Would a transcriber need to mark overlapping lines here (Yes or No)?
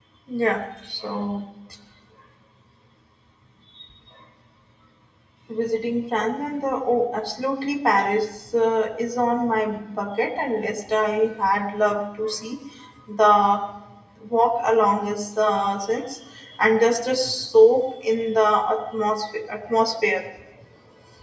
No